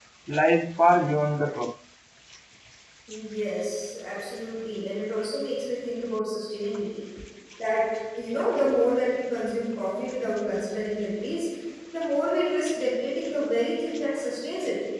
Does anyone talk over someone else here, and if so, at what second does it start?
none

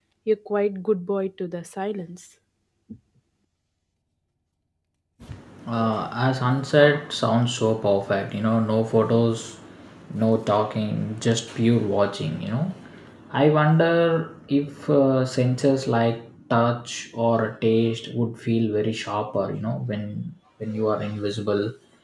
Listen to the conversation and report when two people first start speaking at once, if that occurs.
none

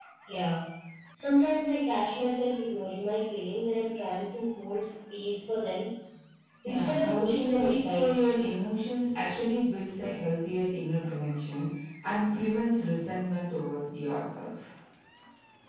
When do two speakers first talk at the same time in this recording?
6.6 s

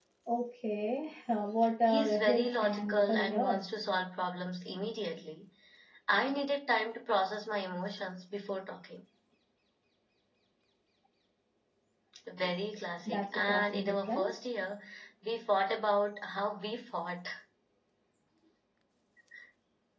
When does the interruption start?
1.9 s

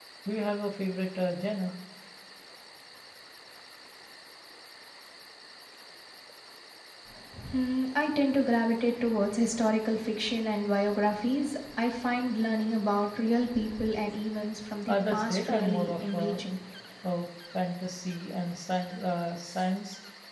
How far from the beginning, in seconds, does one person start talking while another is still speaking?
14.9 s

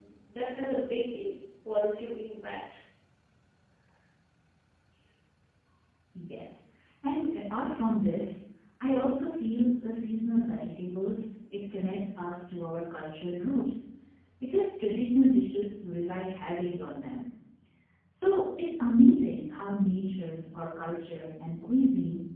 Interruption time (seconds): none

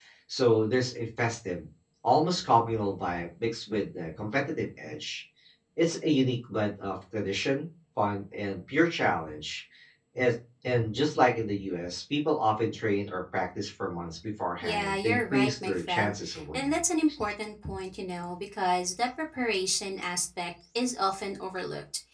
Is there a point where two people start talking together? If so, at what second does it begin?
14.6 s

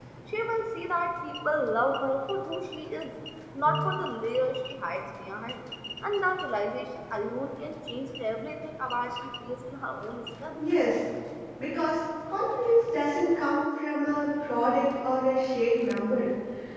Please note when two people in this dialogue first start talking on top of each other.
none

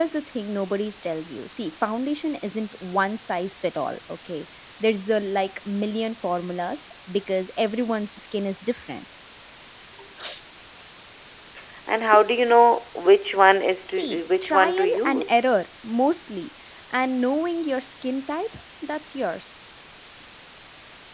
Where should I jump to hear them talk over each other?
13.9 s

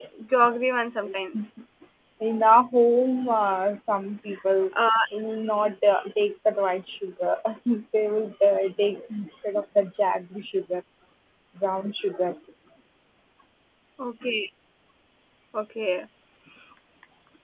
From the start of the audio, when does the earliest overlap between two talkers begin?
none

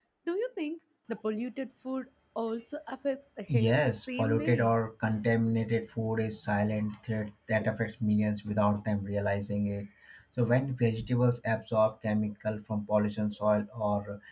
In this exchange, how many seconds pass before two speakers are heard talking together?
3.5 s

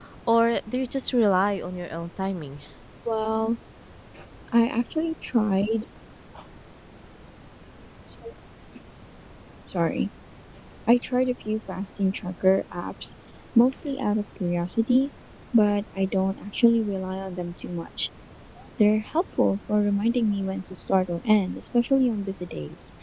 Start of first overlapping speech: none

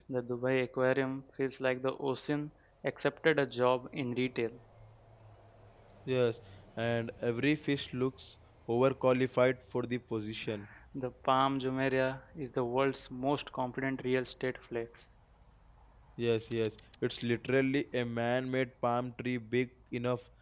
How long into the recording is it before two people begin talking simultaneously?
none

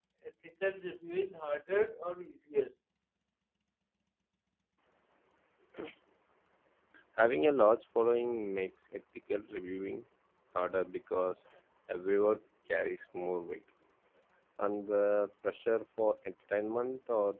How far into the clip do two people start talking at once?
none

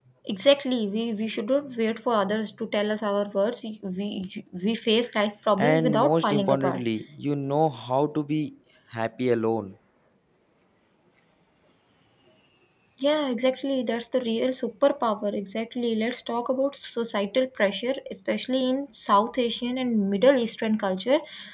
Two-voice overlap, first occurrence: 5.6 s

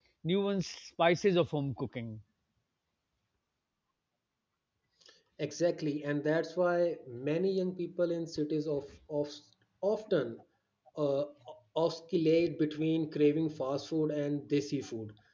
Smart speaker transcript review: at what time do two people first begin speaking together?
none

